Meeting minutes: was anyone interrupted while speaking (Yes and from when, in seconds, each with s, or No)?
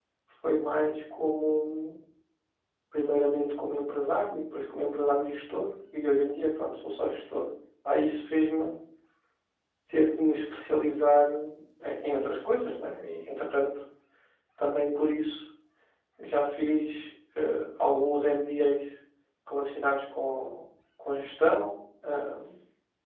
No